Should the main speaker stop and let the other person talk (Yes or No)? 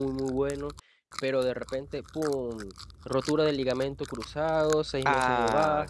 No